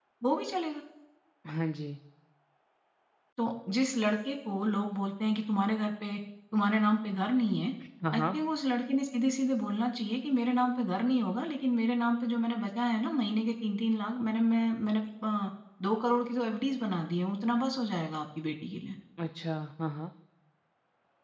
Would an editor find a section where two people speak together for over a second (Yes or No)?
No